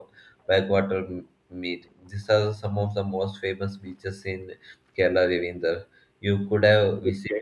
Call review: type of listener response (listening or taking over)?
taking over